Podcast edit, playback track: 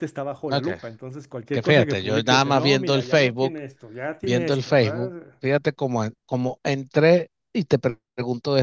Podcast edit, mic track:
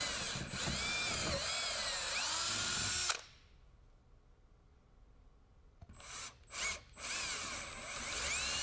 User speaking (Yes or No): No